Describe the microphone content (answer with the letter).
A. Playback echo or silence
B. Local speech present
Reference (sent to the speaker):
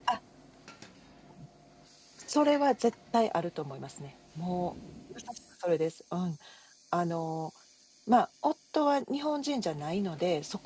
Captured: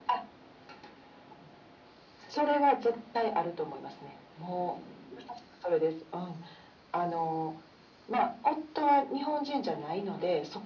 A